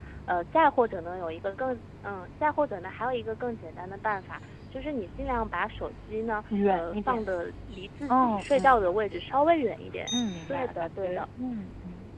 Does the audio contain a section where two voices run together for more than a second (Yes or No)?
Yes